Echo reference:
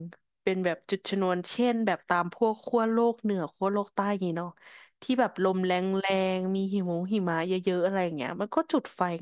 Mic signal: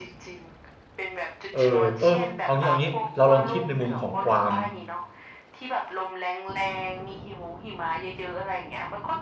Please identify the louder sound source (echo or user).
user